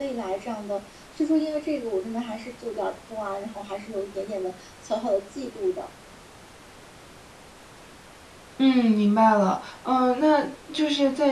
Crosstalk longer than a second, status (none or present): none